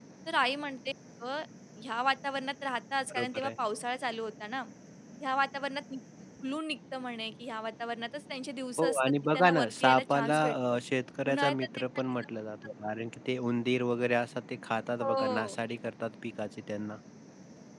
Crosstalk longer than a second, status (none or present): present